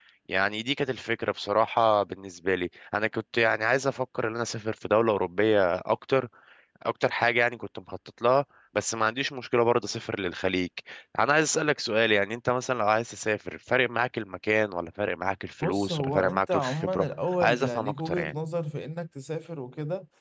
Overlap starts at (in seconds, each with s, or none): 15.6 s